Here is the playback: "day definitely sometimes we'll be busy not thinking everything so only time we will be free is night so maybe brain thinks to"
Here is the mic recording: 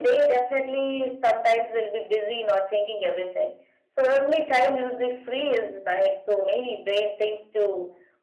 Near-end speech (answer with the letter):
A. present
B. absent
B